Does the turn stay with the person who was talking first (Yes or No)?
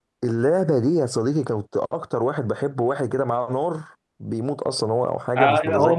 No